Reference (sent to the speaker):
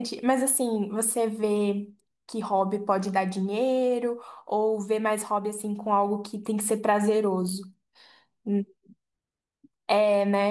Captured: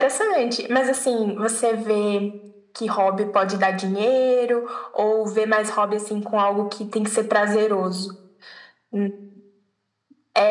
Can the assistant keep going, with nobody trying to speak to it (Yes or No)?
Yes